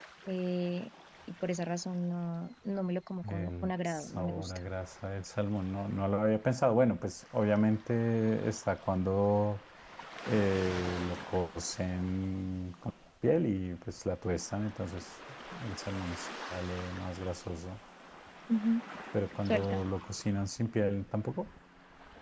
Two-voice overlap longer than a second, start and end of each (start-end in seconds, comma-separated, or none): 3.2-4.6